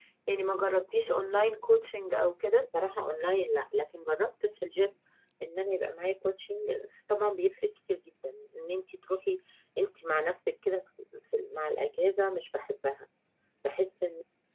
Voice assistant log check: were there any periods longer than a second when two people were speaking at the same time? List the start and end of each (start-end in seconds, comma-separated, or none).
none